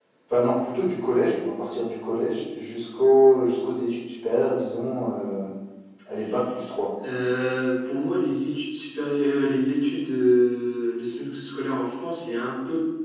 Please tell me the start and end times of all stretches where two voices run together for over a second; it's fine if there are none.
none

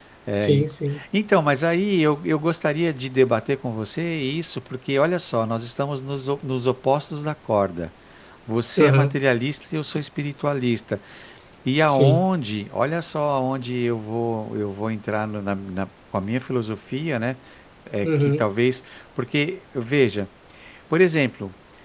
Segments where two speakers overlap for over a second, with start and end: none

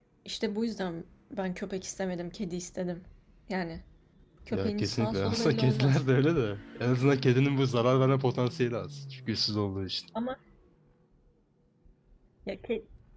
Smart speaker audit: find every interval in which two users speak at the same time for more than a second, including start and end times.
4.5-6.1

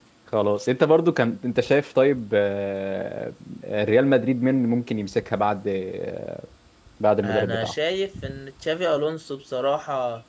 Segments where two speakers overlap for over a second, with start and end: none

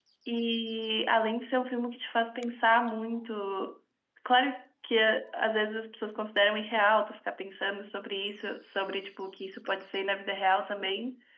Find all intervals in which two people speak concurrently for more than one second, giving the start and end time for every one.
none

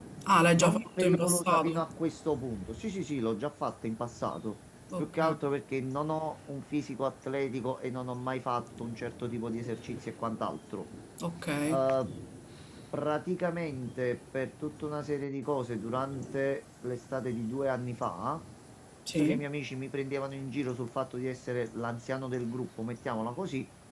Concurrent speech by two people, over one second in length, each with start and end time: 0.6-1.8

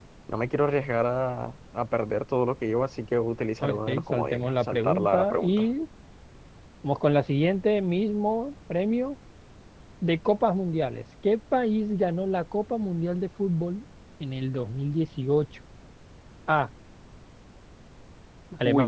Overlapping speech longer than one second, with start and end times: 3.6-5.7

